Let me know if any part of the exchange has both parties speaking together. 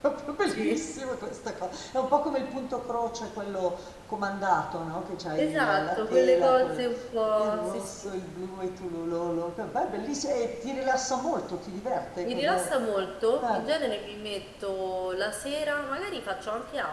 Yes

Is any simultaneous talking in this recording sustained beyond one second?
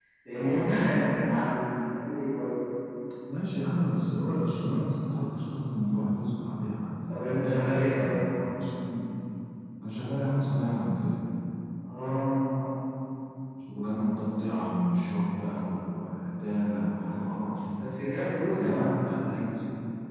No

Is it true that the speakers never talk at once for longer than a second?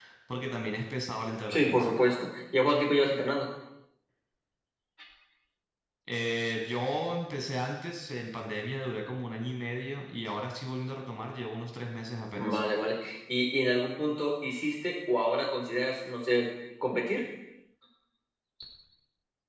Yes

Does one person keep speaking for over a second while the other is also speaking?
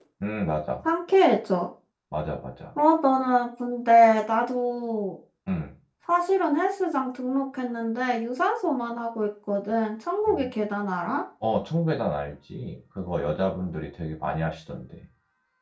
No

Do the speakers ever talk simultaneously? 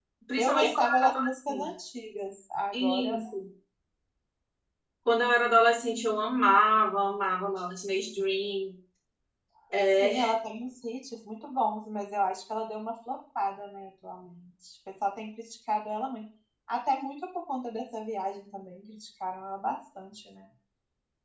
Yes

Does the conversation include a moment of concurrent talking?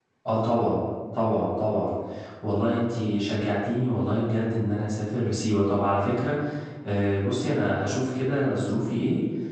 No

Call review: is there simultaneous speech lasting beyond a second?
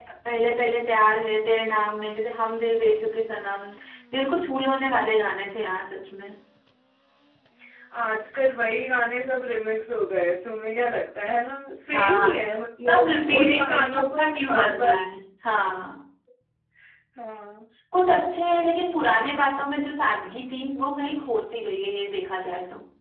Yes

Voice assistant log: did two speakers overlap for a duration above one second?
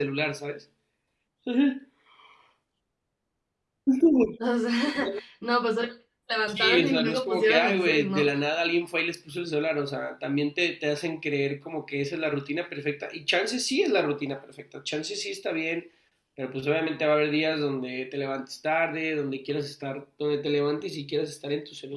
Yes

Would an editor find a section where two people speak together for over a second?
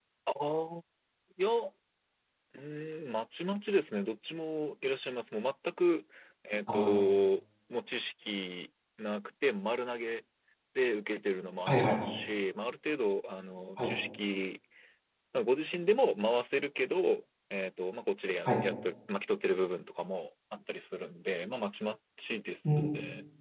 No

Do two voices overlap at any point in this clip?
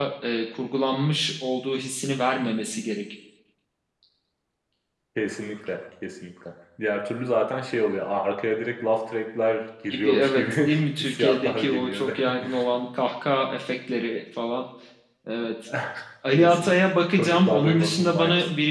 Yes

